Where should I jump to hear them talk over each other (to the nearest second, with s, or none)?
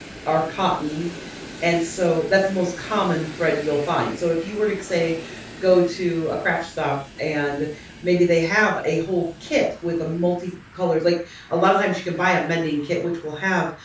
none